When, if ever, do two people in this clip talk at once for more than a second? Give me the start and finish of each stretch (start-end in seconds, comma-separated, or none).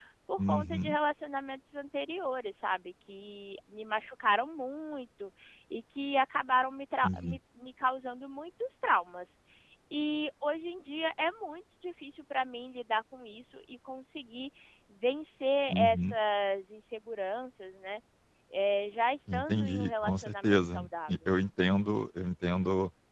19.3-21.1